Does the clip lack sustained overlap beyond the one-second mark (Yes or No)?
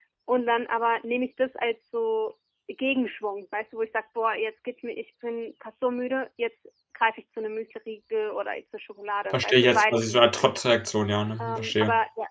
No